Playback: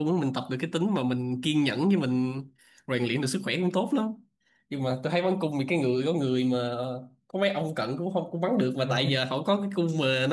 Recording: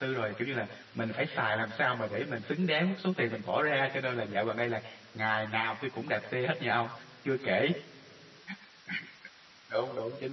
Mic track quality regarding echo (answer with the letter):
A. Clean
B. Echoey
A